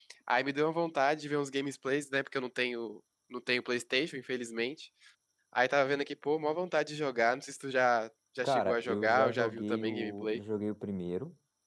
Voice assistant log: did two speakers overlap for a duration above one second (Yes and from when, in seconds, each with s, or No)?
Yes, from 8.4 s